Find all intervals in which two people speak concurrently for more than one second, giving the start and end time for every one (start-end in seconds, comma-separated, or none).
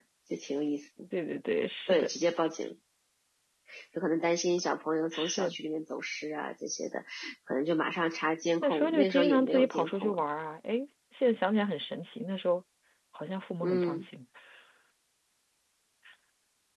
8.6-10.2